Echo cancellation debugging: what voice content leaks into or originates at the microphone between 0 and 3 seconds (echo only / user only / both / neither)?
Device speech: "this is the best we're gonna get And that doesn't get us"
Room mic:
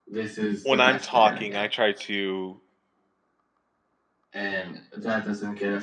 both